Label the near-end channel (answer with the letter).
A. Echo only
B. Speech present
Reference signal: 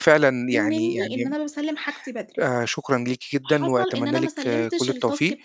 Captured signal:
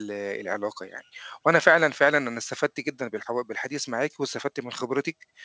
B